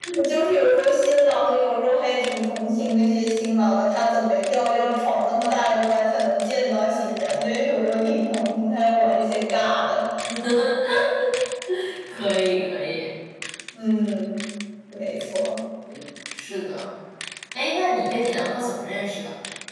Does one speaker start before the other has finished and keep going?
No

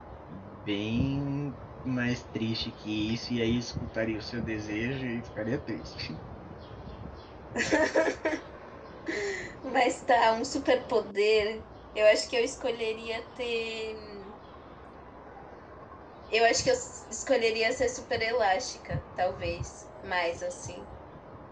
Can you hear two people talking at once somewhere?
No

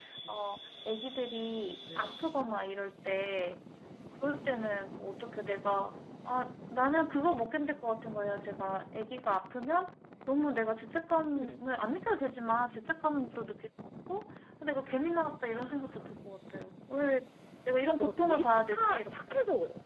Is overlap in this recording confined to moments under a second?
No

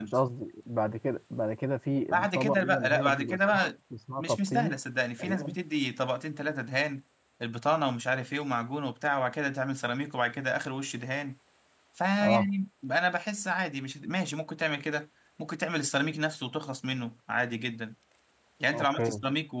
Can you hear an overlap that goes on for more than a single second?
Yes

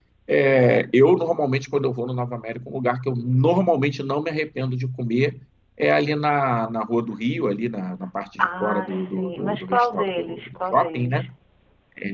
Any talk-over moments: Yes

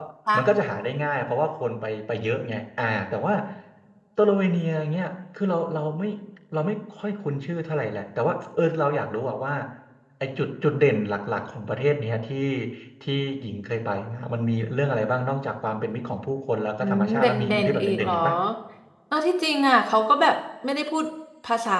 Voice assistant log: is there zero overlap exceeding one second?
No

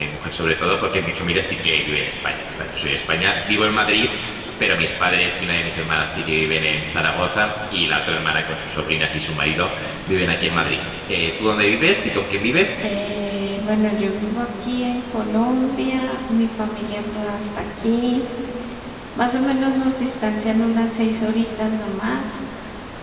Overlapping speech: No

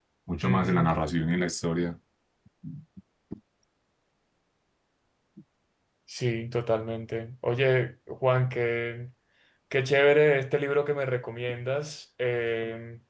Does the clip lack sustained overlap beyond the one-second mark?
Yes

